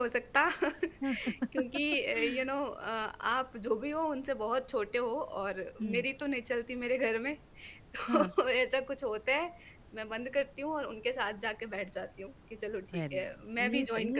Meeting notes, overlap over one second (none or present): present